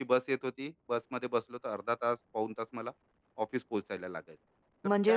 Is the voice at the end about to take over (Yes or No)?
Yes